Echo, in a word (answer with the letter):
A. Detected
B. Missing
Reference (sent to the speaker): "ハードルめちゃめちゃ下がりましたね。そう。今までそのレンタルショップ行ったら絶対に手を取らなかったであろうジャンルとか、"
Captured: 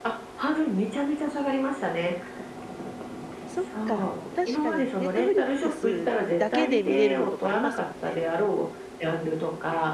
A